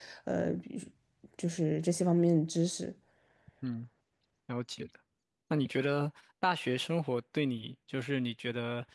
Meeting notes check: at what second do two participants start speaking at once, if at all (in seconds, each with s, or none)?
none